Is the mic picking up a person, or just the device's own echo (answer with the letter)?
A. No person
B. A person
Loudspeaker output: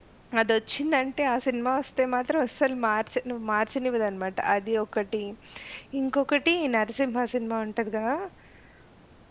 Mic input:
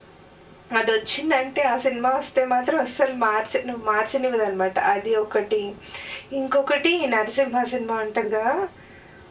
A